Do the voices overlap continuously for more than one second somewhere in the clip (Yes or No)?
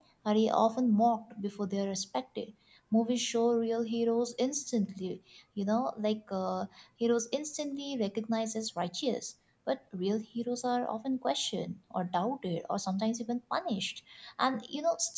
No